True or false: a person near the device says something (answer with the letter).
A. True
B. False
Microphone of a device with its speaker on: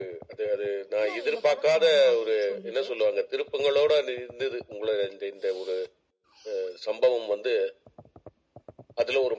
A